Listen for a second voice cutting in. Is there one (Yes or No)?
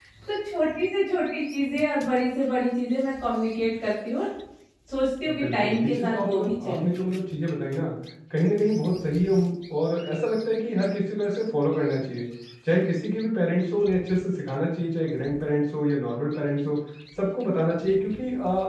Yes